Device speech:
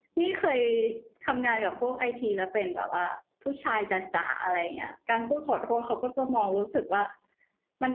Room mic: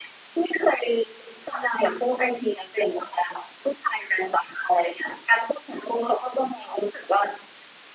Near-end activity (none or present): none